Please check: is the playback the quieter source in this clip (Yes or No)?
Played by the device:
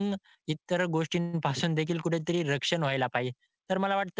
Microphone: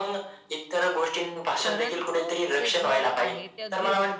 No